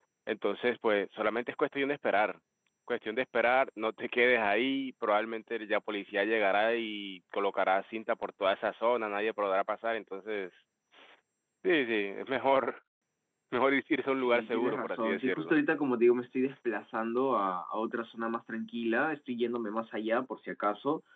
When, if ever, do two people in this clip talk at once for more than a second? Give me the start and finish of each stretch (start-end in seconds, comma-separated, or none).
14.1-15.6